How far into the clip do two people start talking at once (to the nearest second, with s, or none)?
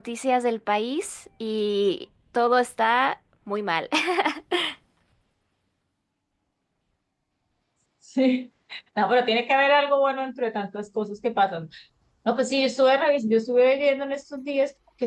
none